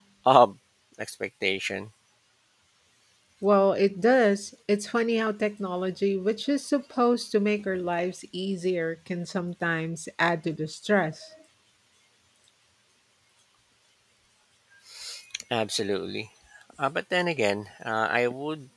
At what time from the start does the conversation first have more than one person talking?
none

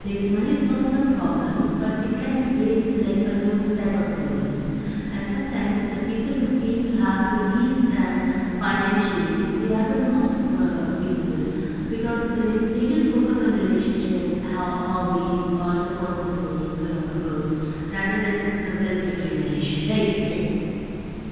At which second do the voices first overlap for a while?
none

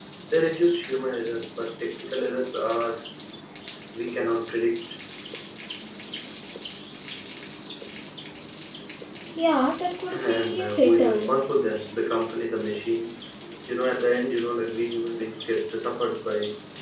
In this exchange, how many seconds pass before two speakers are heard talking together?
10 s

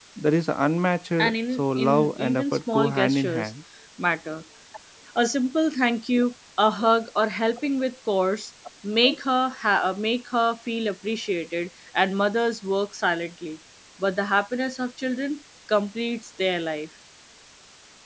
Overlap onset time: 1 s

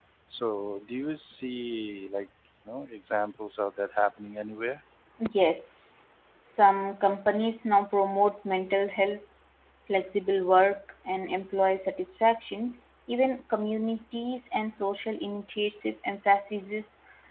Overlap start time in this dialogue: none

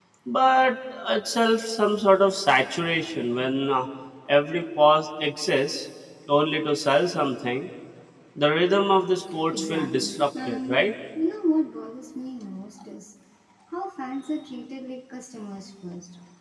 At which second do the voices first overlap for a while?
10 s

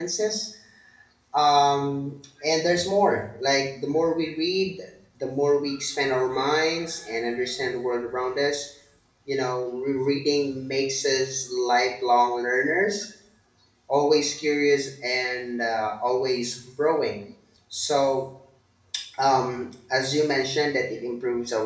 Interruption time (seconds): none

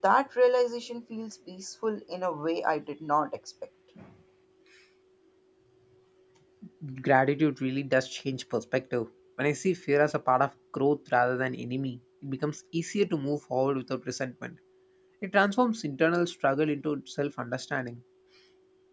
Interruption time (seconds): none

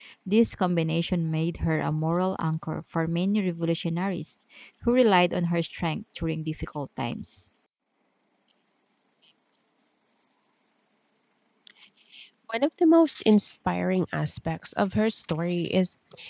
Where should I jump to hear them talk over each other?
none

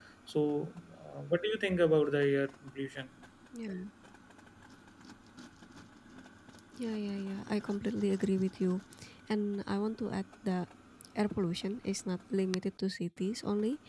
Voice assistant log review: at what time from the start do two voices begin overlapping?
none

